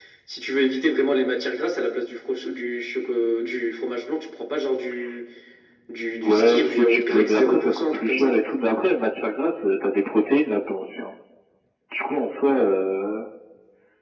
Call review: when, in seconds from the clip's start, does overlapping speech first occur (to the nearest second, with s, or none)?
6 s